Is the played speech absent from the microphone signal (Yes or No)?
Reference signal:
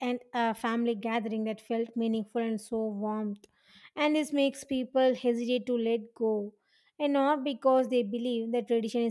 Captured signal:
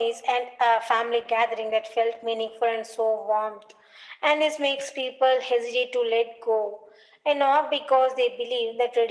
No